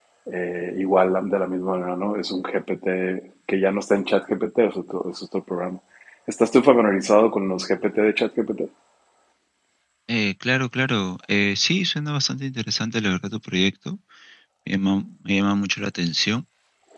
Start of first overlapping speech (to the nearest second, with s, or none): none